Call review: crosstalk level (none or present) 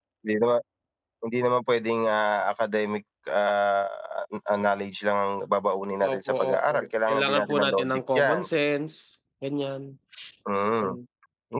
present